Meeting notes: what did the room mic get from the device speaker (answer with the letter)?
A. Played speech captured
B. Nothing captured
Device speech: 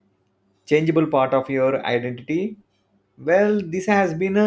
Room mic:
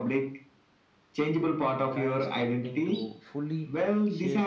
A